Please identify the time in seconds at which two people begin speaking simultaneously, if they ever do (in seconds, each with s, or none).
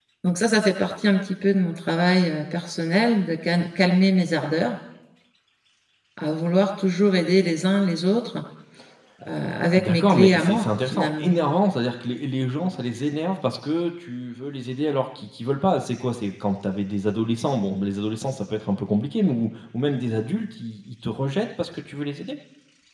9.8 s